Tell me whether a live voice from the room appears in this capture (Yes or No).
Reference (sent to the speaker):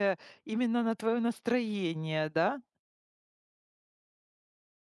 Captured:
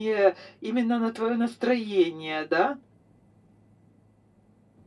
No